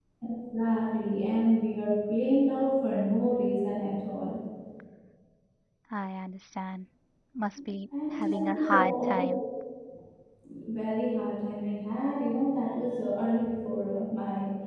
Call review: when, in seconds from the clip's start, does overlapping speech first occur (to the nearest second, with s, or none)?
8 s